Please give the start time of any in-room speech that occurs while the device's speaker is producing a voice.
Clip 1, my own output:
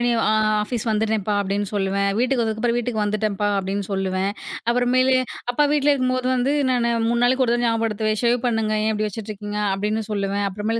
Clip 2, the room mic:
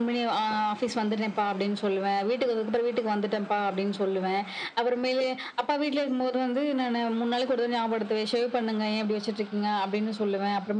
none

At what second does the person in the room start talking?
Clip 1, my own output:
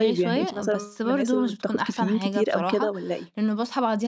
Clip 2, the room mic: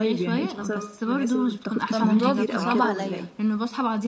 1.9 s

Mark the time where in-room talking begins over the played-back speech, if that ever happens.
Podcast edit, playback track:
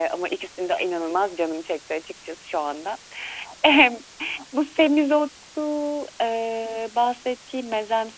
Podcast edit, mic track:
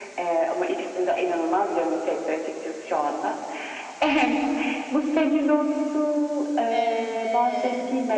6.7 s

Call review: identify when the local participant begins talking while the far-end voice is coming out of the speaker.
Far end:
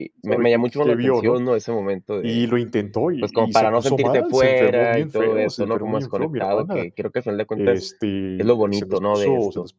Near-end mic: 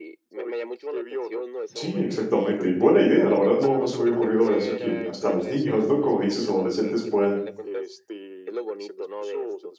1.7 s

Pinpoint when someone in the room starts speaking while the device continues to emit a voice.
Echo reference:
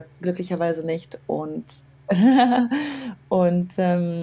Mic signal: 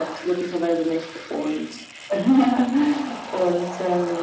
none

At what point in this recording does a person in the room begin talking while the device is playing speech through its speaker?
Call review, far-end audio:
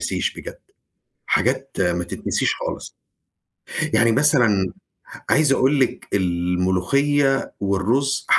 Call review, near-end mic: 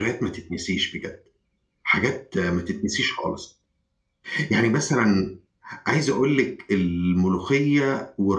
none

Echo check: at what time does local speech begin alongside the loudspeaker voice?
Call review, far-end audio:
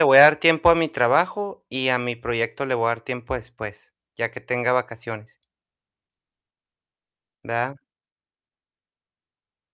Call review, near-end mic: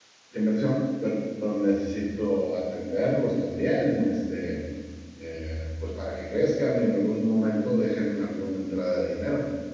0.3 s

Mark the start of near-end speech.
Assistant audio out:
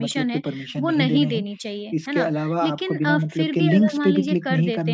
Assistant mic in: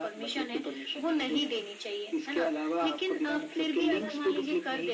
none

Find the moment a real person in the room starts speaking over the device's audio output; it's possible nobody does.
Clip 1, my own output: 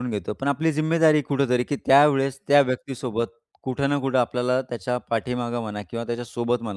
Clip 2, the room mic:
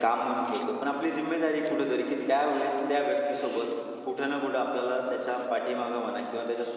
none

